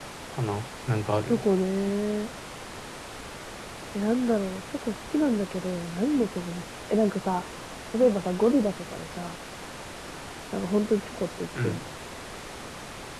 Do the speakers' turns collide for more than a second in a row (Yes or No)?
No